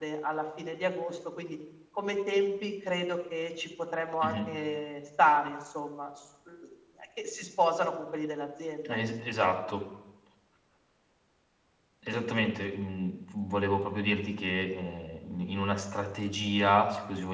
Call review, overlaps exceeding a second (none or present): none